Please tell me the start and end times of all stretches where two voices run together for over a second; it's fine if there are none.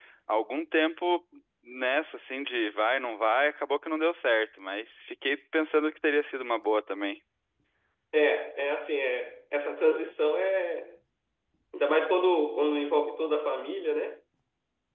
none

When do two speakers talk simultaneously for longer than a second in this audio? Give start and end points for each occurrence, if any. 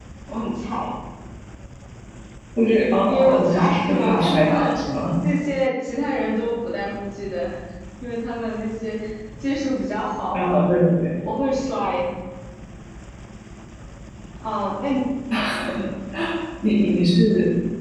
3.1-4.8

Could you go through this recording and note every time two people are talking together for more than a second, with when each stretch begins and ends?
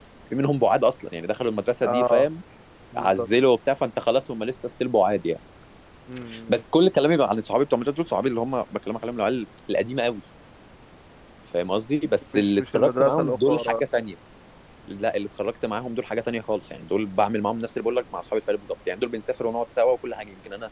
12.3-13.7

